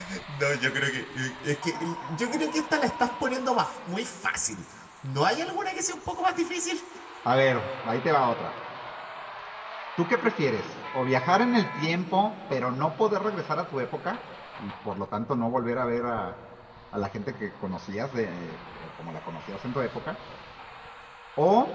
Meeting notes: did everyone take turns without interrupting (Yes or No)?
Yes